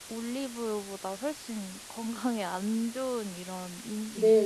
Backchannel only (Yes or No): No